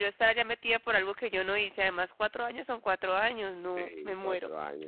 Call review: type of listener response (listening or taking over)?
taking over